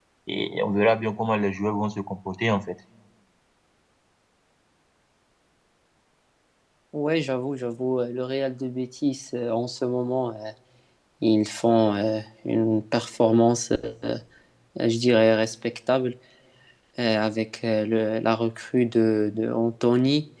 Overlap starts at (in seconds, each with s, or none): none